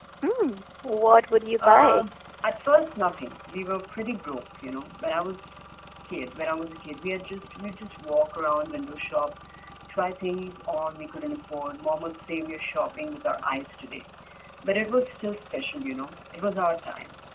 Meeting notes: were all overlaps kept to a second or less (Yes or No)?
Yes